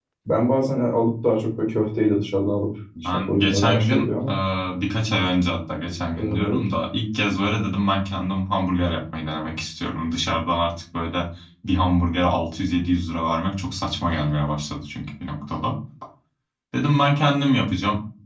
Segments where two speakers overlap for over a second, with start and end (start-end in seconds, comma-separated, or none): 3.0-4.3